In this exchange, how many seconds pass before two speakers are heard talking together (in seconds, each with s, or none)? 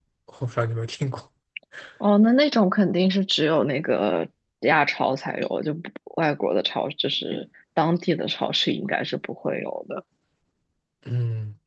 none